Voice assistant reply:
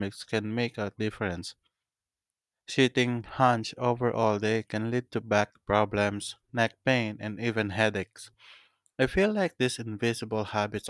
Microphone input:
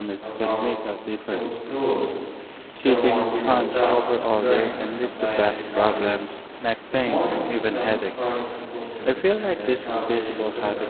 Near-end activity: present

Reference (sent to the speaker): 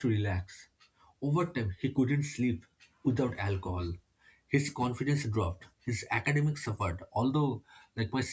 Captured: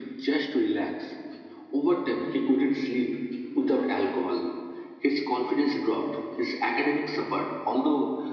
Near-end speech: none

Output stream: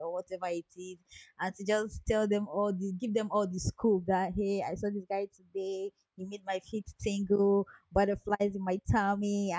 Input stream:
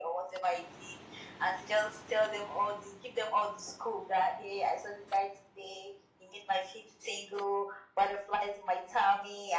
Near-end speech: none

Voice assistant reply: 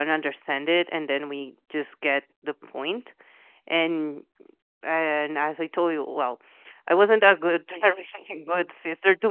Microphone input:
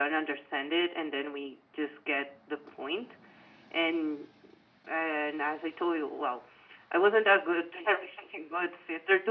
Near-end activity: none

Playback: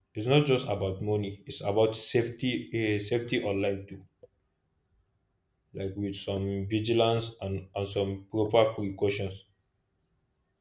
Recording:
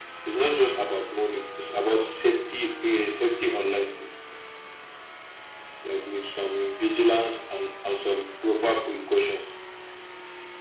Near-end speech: none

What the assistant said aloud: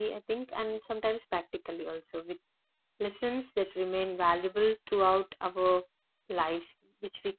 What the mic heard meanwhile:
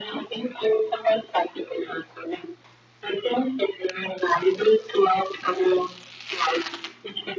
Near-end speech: none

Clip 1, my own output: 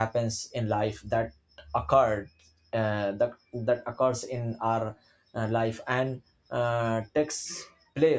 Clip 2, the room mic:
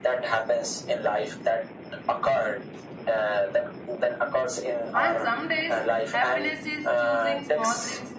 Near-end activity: present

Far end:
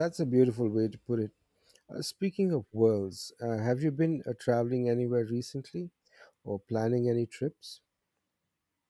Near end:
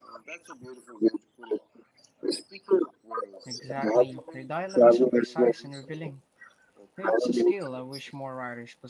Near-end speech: present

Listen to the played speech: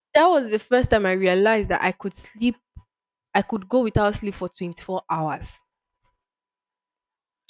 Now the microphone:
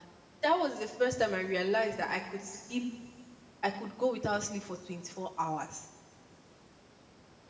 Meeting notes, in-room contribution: none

